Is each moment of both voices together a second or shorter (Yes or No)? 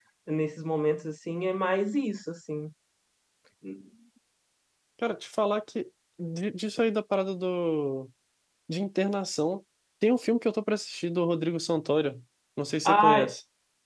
Yes